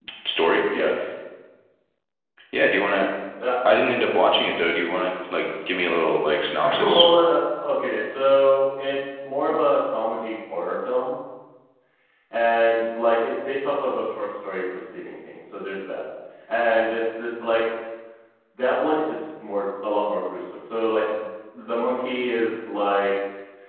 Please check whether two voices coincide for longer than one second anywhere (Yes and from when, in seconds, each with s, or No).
No